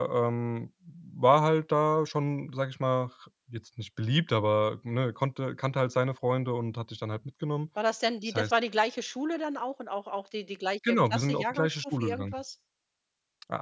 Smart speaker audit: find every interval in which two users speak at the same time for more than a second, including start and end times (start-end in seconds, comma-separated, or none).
10.9-12.3